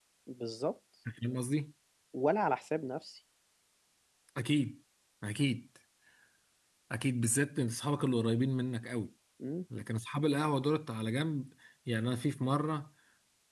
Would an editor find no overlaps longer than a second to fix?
Yes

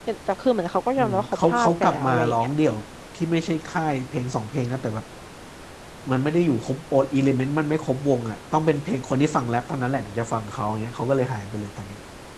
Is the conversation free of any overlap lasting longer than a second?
No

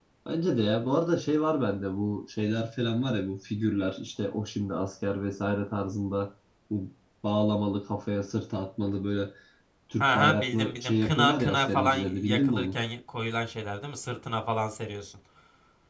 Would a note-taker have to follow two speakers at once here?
Yes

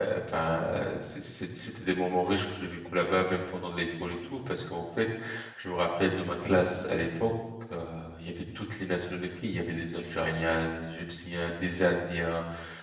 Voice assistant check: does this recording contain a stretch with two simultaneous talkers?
No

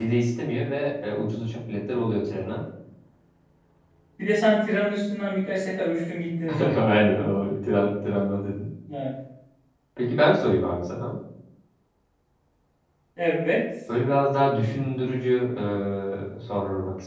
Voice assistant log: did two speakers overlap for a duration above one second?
No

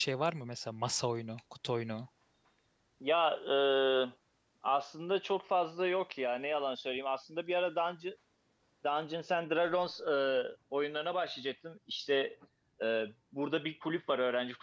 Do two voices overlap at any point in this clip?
No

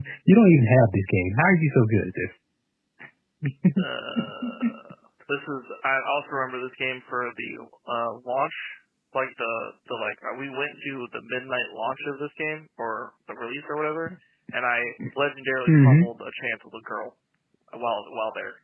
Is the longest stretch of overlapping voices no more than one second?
Yes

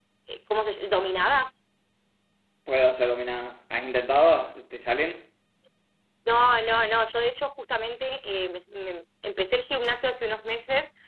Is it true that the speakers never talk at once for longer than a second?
Yes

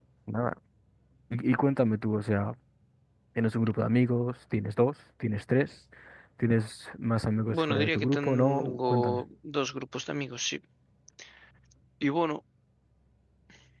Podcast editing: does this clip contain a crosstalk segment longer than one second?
Yes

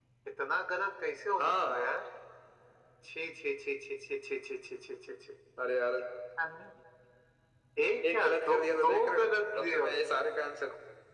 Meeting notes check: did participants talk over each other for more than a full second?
Yes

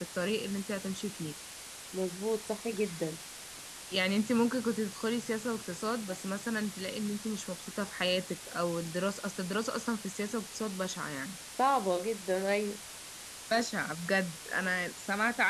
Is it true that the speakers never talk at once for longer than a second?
Yes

